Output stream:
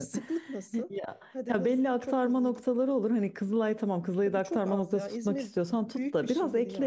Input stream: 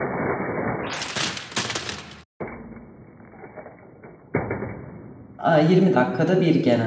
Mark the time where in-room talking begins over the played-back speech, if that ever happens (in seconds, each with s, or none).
5.4 s